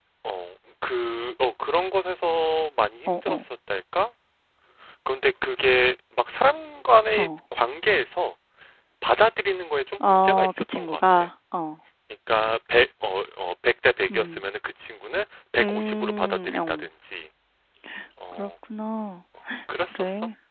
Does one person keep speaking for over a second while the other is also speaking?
Yes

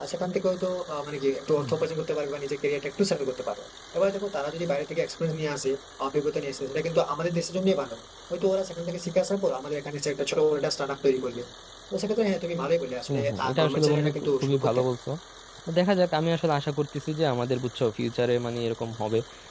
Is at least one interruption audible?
Yes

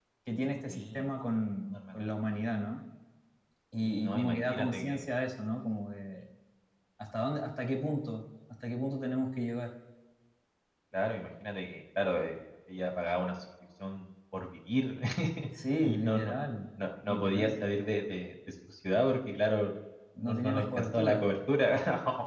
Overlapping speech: Yes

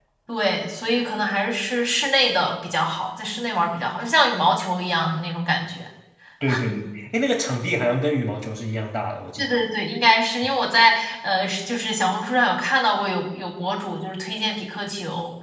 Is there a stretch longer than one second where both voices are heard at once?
No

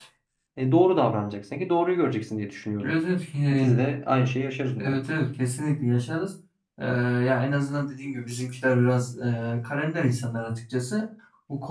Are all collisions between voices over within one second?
Yes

